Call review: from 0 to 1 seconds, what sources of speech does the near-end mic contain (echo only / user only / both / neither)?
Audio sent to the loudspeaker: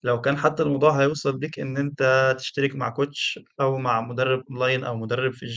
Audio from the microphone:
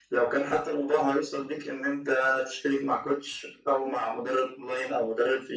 echo only